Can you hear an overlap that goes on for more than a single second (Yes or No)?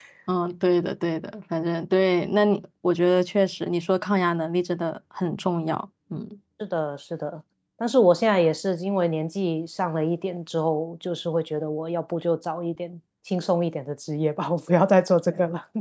No